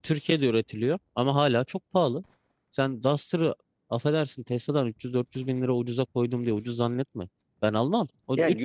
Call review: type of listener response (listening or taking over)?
taking over